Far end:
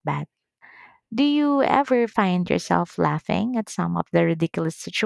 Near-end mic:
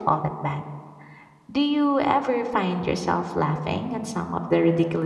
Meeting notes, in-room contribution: none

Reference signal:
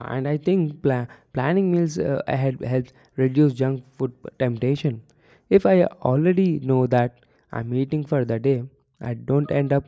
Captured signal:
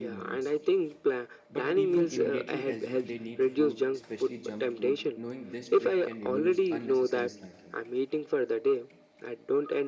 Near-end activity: present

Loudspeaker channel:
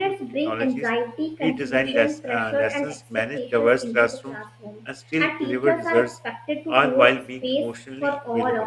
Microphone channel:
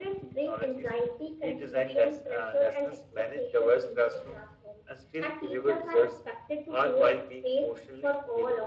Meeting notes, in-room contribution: none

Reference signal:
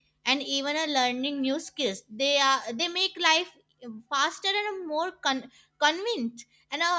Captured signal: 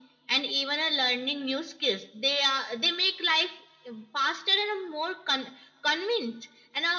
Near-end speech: none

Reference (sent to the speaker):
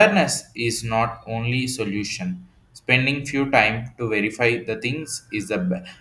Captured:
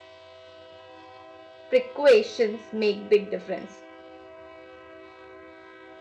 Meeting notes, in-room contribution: present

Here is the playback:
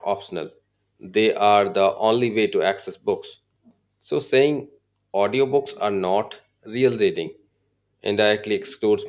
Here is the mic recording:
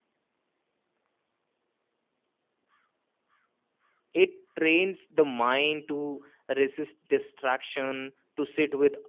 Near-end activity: present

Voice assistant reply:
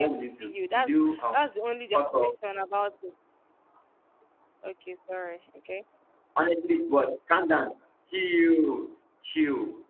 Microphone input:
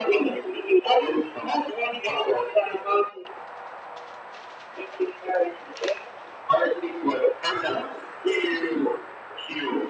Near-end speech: none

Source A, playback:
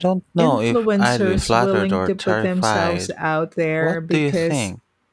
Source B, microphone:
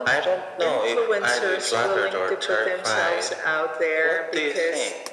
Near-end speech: none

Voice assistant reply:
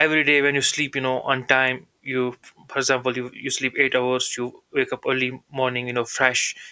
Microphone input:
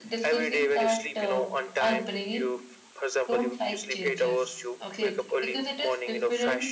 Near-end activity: present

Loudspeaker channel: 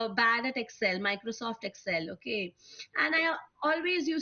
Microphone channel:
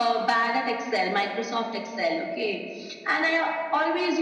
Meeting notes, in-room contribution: none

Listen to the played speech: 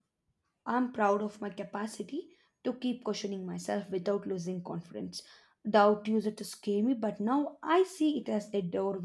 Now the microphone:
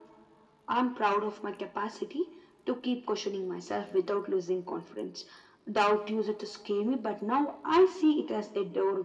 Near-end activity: none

